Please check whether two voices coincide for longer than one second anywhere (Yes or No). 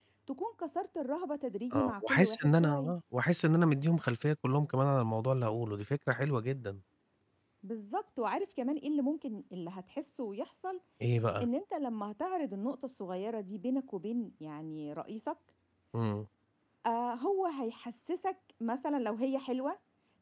Yes